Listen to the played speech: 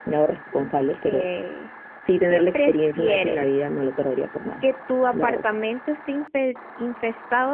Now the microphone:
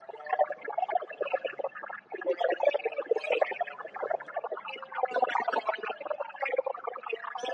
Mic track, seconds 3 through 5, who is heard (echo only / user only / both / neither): echo only